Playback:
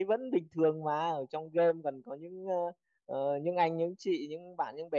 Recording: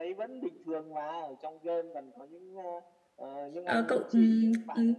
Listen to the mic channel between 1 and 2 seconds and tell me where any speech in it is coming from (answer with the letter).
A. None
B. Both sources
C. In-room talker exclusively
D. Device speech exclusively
D